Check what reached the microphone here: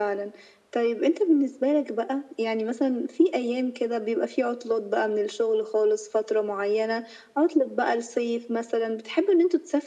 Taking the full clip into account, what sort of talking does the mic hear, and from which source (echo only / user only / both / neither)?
echo only